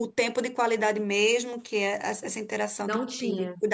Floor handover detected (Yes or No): No